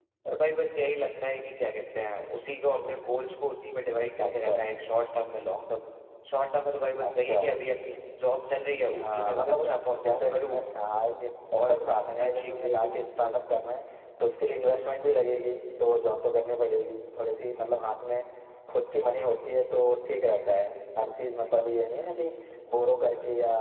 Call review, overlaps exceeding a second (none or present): present